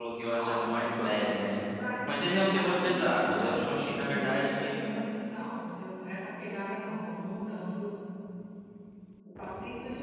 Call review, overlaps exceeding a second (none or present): present